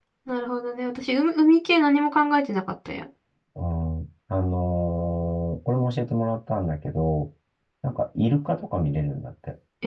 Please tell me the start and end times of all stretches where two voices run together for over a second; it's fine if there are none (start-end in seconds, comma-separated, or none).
none